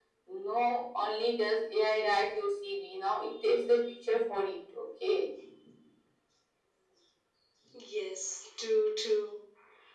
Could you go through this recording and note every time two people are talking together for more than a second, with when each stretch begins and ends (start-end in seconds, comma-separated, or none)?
none